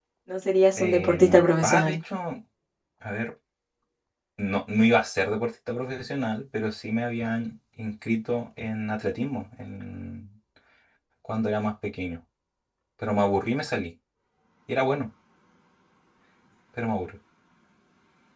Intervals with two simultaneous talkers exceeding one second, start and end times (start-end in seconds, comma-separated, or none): 0.8-2.0